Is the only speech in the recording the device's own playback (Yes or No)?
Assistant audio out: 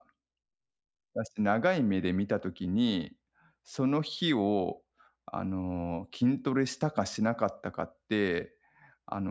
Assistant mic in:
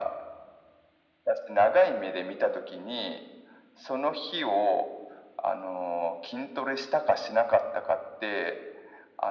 Yes